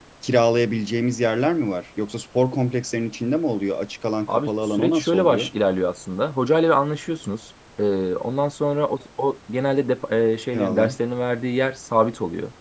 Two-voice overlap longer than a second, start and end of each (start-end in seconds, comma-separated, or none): 4.3-5.5